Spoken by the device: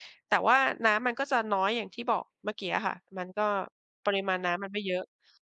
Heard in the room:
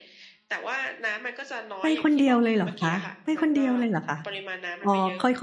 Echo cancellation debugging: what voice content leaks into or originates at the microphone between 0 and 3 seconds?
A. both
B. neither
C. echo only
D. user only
A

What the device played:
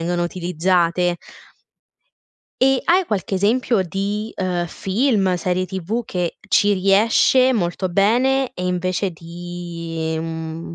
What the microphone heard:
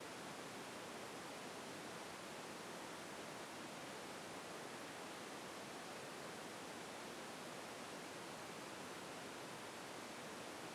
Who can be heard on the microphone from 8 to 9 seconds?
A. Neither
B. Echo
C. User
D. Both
A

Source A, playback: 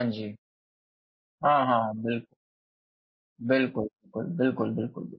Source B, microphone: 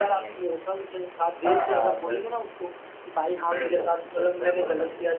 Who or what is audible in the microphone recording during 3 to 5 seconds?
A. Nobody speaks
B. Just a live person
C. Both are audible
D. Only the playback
C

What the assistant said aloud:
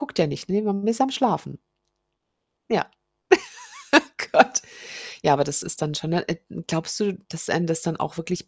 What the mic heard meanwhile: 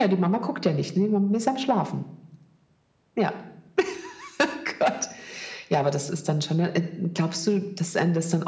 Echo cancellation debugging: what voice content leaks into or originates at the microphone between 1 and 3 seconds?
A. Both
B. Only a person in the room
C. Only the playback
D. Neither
C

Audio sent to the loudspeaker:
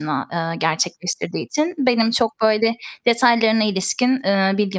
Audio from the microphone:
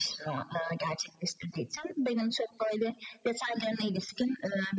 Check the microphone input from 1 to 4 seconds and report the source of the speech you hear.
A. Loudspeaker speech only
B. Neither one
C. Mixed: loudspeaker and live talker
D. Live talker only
A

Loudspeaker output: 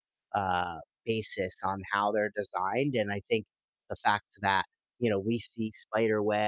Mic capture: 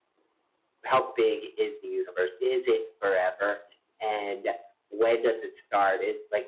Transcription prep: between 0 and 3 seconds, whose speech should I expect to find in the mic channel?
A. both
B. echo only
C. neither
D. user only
D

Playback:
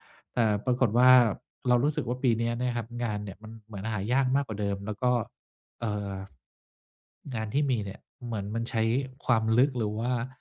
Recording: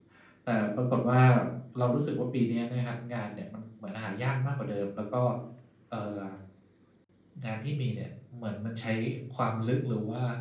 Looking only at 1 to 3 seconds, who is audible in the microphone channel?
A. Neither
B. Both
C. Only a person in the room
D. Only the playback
D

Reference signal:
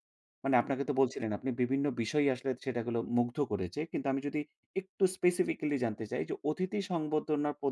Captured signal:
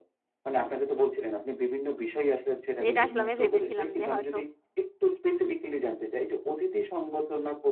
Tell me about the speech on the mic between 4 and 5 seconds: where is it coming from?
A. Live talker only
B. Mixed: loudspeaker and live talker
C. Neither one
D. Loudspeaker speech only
B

